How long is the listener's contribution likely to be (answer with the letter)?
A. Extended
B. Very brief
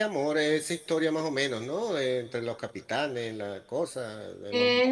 A